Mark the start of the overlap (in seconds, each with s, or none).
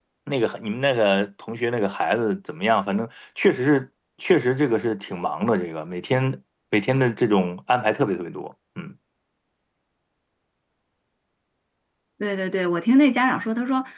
none